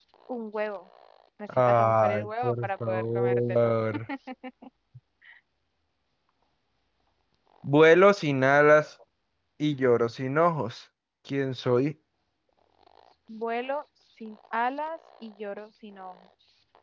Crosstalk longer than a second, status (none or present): present